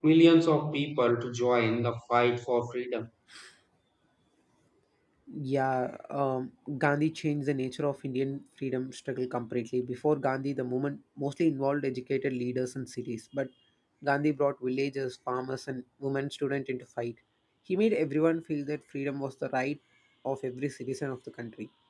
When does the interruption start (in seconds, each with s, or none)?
none